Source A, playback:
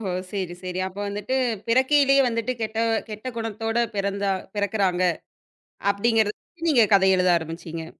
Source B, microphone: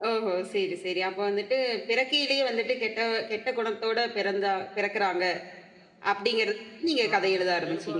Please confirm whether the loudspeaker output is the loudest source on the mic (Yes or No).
Yes